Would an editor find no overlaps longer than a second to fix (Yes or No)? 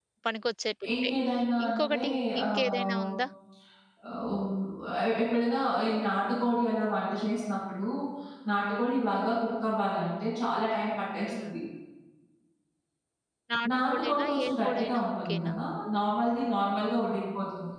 No